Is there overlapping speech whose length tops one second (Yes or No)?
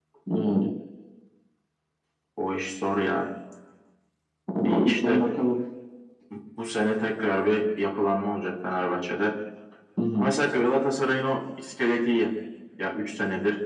No